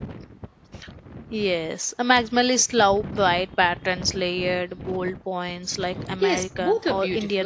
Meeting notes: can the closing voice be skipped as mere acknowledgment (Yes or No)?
No